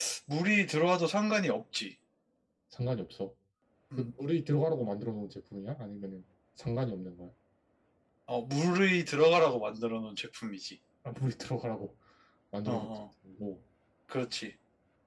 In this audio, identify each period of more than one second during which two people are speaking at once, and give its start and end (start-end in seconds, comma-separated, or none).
none